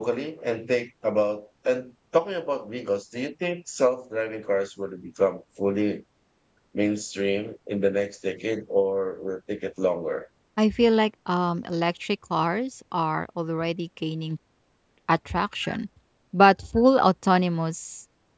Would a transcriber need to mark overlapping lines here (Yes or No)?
No